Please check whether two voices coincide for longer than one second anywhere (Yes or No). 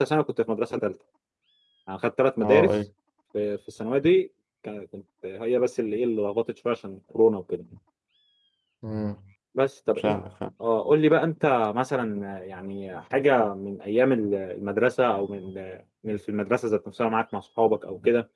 No